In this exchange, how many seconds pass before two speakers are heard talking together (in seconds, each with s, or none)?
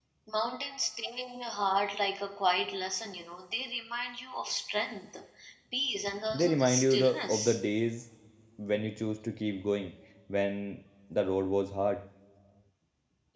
6.3 s